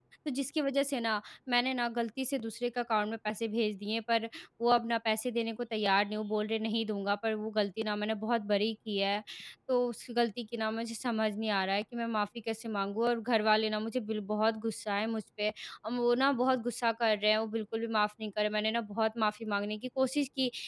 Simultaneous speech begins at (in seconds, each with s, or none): none